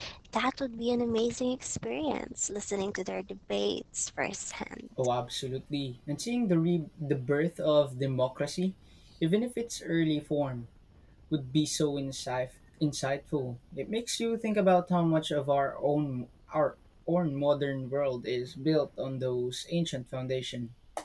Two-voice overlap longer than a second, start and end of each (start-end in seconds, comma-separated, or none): none